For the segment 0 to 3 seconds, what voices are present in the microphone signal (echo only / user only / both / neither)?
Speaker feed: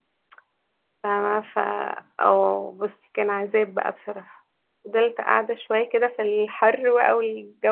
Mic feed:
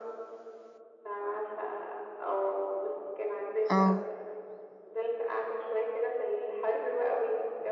echo only